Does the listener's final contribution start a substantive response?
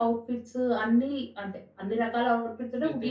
No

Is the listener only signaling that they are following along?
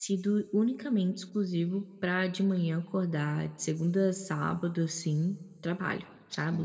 No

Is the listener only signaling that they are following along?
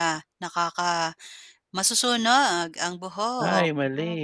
No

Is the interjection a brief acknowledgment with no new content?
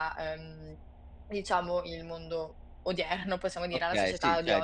No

